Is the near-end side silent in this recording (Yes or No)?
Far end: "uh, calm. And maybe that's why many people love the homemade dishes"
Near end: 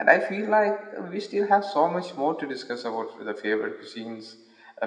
No